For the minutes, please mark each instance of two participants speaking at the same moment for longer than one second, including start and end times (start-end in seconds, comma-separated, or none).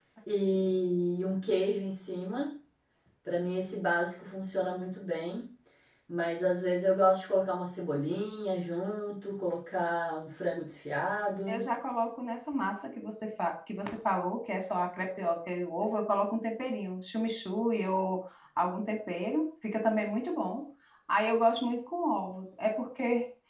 none